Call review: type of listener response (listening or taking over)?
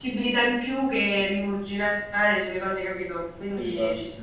taking over